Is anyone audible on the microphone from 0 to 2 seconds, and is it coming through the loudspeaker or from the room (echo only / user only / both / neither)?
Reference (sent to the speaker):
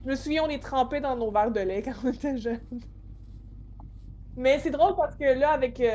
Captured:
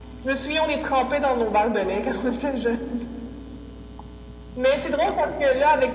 echo only